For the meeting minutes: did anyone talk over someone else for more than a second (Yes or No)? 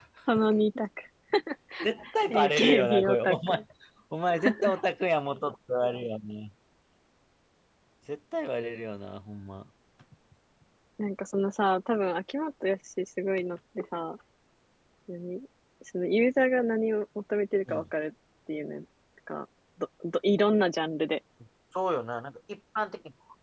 Yes